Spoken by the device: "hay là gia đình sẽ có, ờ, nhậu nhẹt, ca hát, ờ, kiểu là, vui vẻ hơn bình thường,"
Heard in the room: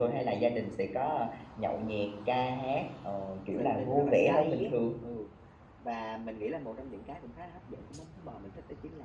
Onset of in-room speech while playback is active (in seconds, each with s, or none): 3.6 s